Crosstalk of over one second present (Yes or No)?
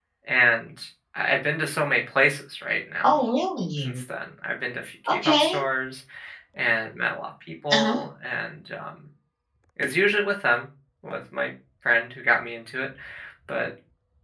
No